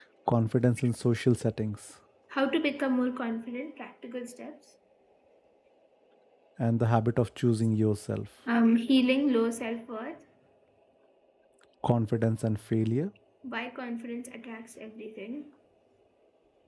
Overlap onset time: none

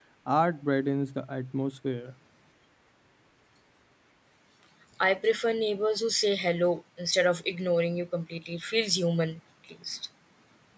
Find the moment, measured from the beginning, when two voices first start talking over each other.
none

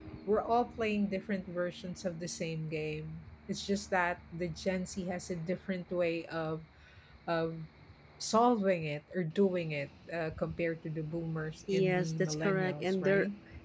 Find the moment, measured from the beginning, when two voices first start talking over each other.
11.7 s

